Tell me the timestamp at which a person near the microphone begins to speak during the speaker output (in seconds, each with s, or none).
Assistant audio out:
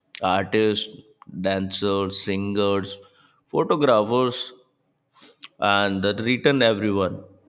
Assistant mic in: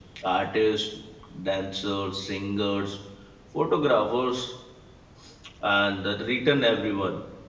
none